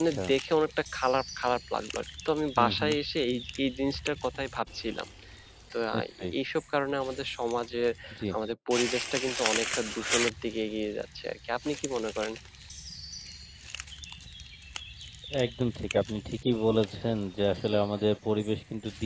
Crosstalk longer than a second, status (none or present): none